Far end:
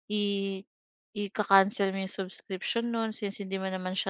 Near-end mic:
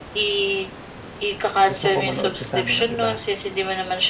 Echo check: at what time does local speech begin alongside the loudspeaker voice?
2 s

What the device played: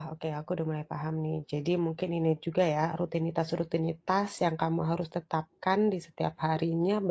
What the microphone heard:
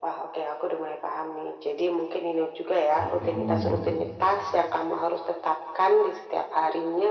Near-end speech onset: 3 s

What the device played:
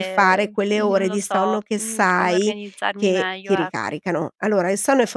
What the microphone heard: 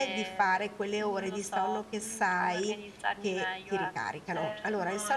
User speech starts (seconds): 4 s

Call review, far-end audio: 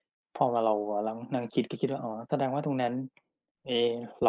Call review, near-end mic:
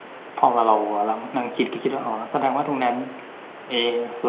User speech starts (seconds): none

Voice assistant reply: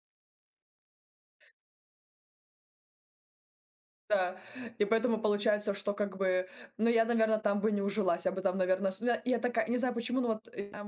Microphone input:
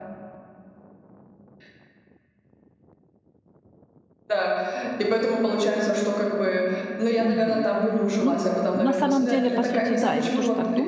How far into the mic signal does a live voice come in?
7 s

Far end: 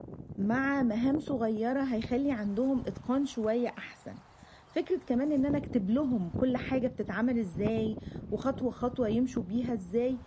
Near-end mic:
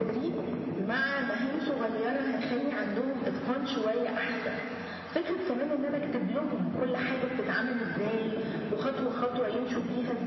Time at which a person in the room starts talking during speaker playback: none

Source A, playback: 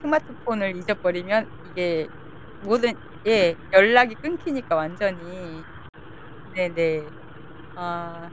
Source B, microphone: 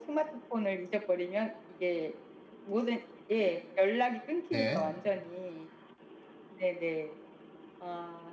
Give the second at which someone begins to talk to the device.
4 s

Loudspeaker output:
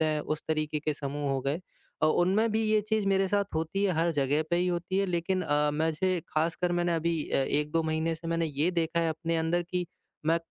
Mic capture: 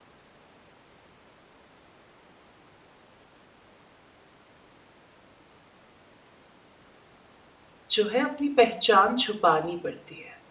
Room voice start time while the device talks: 8 s

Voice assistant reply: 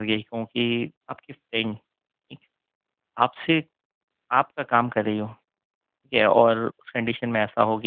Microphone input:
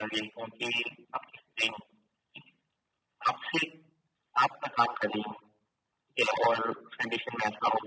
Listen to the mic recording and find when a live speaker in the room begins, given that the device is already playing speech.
none

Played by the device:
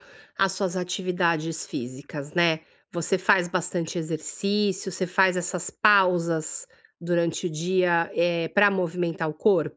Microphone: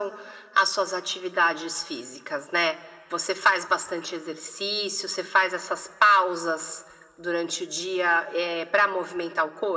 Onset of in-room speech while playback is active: none

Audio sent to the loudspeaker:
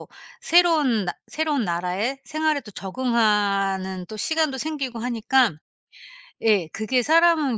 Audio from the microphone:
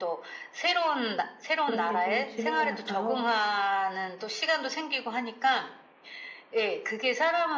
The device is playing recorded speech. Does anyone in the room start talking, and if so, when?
2 s

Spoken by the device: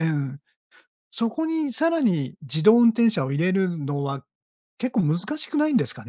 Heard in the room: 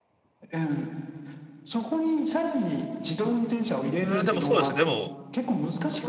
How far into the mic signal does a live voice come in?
4 s

